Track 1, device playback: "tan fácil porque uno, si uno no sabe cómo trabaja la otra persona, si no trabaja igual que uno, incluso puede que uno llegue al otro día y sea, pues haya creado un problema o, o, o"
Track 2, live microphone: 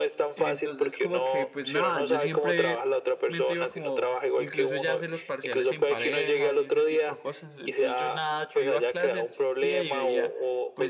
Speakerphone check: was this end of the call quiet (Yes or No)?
No